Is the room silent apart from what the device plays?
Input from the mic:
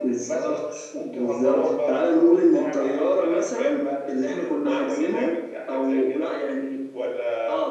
Yes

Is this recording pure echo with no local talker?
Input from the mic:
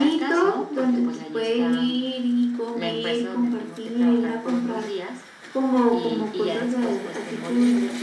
Yes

